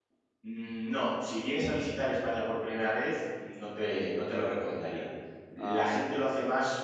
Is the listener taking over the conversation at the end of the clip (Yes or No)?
No